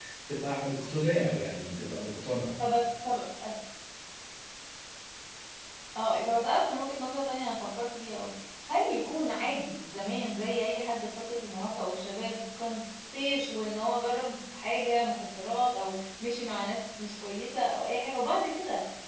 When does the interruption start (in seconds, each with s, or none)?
none